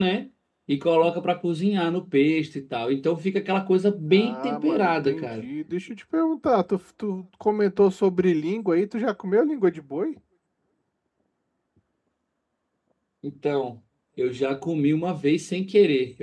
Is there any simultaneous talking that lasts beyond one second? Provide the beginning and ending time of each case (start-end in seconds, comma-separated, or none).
4.1-5.5